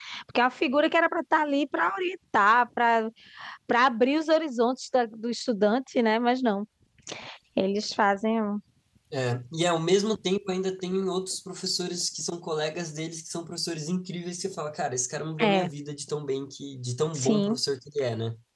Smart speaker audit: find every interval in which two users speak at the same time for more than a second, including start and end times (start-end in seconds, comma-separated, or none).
none